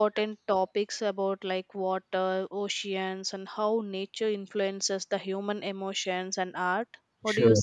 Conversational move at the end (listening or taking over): taking over